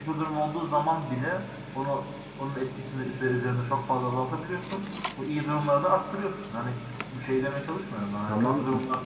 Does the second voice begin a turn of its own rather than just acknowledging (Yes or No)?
No